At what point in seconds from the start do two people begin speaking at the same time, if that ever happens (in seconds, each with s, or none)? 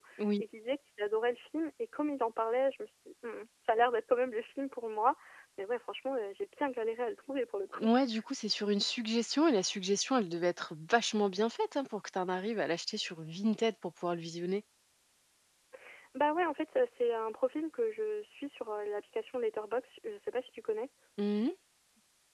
none